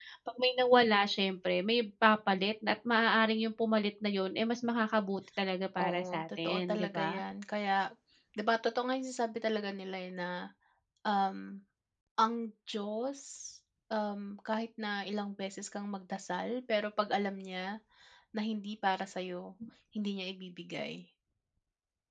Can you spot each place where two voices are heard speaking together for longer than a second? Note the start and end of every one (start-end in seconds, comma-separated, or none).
5.8-7.2